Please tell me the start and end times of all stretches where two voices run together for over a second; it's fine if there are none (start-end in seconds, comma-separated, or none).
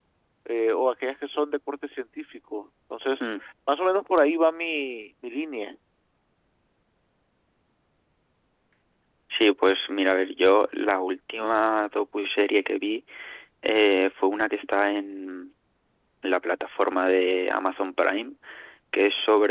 none